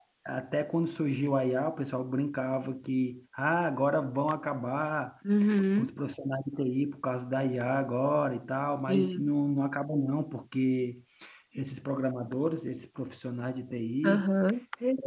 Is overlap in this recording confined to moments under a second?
Yes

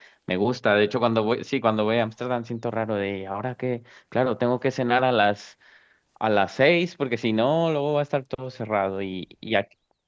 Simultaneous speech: No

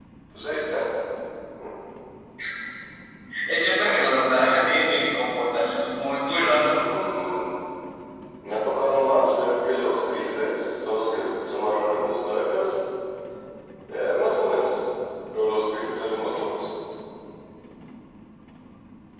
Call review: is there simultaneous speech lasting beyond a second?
No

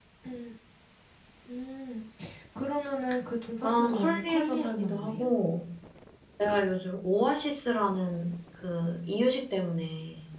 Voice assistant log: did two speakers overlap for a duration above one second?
Yes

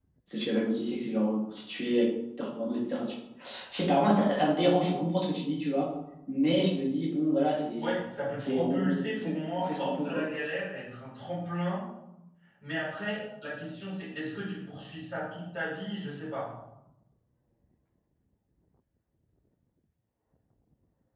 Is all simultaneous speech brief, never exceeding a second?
No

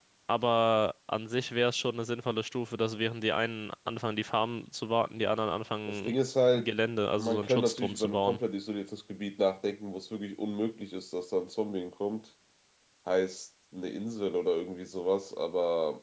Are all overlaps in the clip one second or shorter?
No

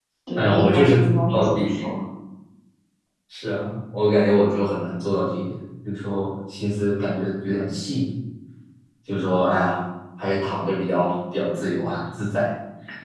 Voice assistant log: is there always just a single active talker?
No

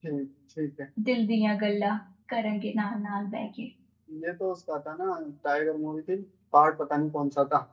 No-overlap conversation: Yes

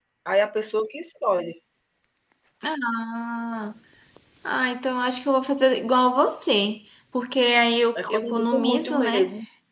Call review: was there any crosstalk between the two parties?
Yes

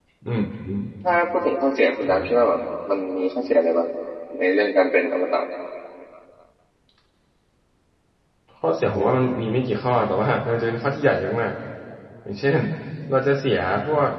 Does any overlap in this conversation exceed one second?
No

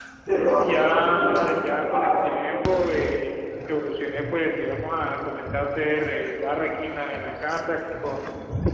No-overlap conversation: No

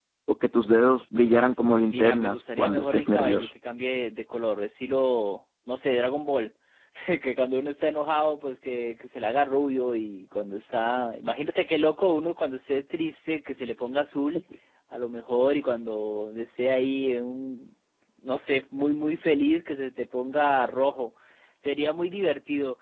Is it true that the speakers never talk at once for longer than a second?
No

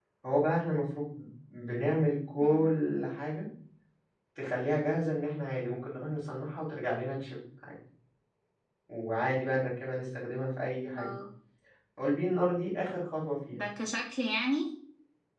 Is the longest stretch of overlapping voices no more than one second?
Yes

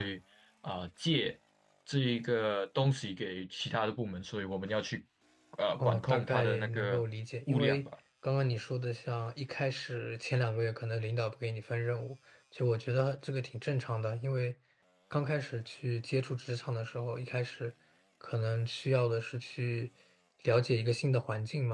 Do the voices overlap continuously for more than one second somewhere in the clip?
Yes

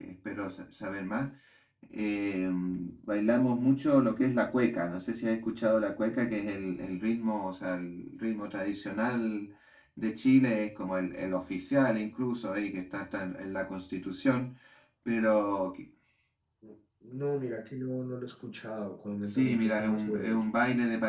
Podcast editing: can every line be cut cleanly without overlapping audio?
No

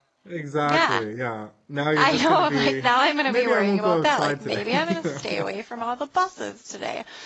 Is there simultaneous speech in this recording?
Yes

